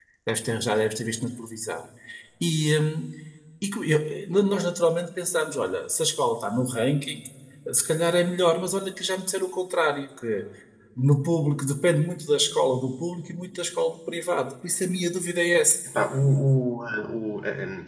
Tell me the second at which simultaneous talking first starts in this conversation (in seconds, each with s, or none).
none